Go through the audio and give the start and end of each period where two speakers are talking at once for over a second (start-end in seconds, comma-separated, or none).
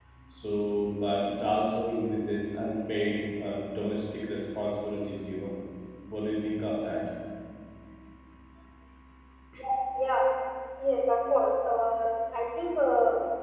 none